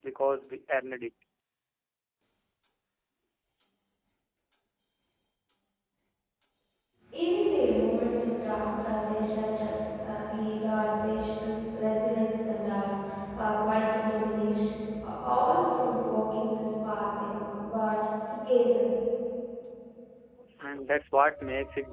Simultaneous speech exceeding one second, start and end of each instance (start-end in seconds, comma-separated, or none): none